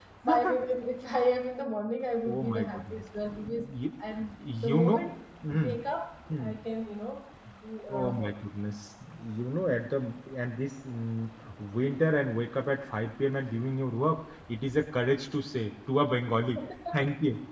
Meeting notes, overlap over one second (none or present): present